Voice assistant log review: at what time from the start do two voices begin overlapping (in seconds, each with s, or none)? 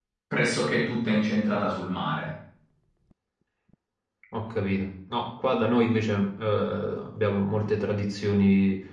none